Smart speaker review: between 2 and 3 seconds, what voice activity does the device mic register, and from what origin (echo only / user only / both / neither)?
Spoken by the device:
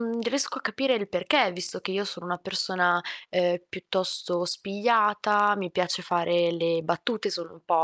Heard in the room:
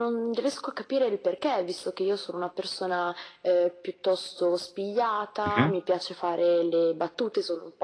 echo only